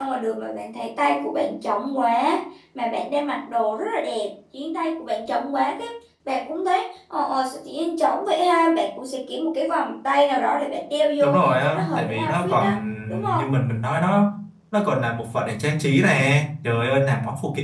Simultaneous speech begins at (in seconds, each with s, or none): 11.2 s